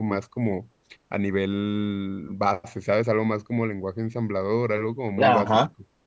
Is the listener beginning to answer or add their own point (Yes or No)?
Yes